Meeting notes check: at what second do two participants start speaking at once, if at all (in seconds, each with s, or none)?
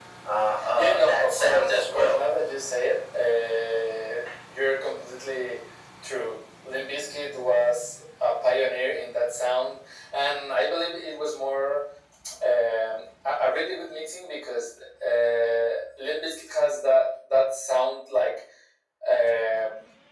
0.7 s